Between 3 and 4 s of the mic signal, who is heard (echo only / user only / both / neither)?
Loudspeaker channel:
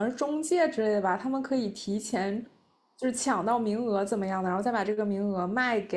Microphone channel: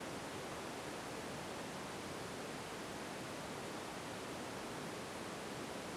neither